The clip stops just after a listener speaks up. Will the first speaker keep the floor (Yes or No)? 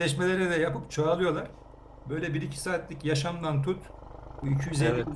Yes